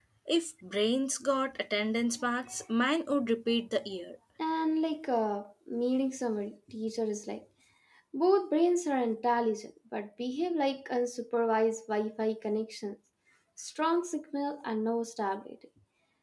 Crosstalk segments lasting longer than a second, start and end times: none

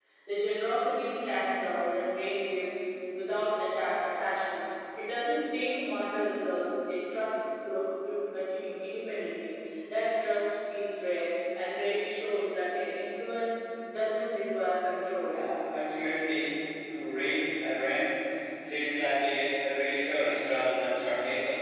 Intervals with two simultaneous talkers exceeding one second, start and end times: none

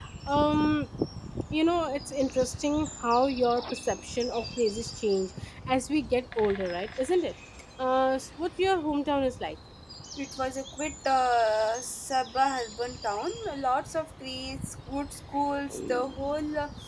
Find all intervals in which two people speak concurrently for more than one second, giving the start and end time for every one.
none

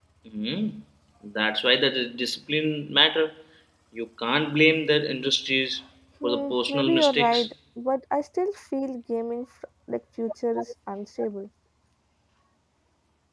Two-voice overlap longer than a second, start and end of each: 6.2-7.5

